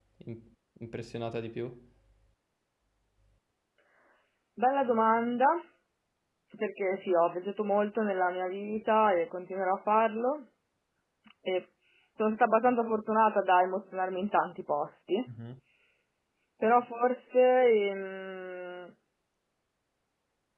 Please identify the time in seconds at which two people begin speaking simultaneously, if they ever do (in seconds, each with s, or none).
none